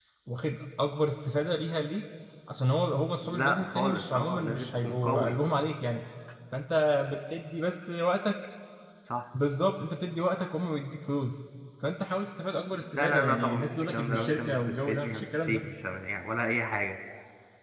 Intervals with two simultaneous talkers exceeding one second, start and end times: 3.2-5.4, 13.0-15.6

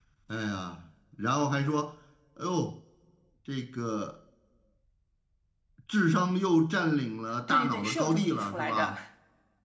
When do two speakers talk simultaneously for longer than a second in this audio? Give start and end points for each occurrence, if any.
7.5-8.9

